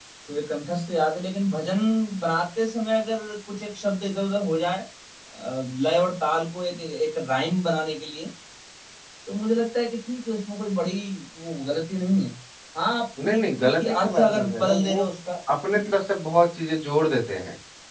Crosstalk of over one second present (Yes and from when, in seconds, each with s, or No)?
Yes, from 13.2 s